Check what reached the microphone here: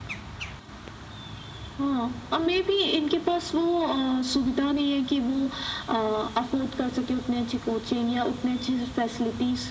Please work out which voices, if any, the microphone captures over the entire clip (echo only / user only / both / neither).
echo only